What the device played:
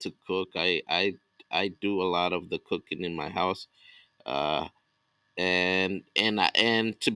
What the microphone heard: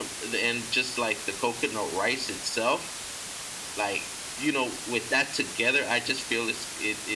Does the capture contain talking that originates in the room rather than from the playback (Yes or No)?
Yes